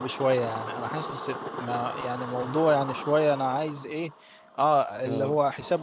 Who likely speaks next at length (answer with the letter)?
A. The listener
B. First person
B